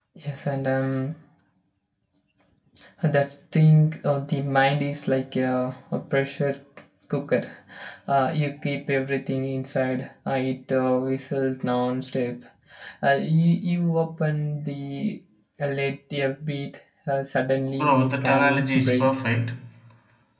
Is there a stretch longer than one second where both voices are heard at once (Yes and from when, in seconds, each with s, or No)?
Yes, from 17.8 s